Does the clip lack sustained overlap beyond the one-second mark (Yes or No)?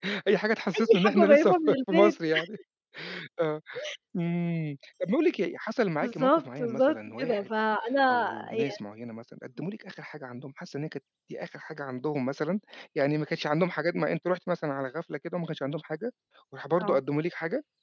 No